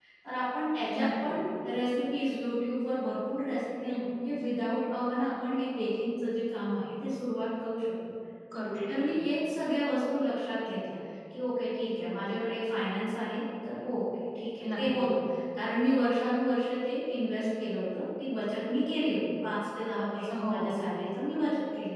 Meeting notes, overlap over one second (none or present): none